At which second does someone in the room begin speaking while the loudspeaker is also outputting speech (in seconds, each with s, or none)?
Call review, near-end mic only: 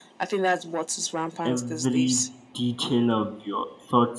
1.4 s